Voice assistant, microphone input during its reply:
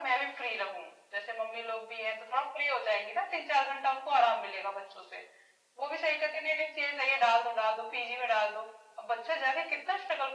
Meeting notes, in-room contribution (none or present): none